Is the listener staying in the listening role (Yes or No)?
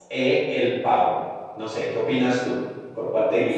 No